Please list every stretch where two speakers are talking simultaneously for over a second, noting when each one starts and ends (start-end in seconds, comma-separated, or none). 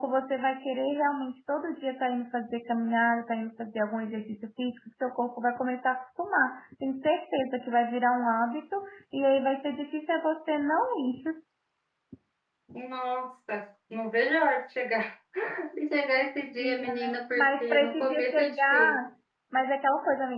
16.6-19.0